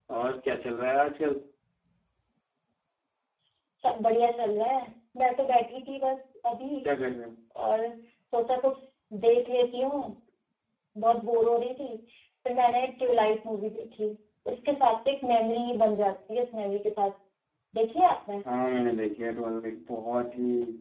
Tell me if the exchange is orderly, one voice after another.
Yes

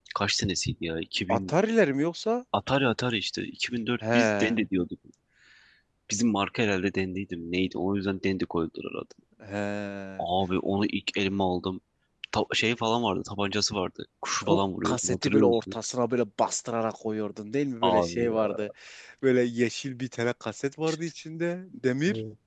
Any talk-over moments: Yes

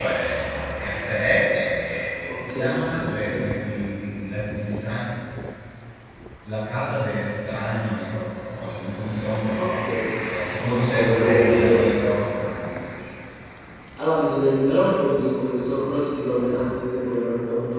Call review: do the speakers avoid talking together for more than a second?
No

